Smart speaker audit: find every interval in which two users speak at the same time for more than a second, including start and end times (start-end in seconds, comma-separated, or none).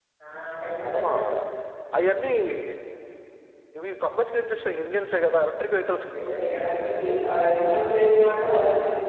none